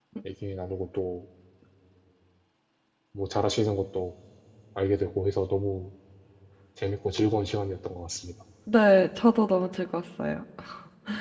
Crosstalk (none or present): none